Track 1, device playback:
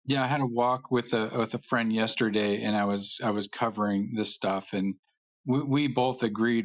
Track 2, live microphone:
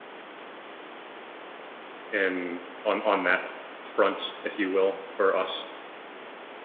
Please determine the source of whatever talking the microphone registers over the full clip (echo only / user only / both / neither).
user only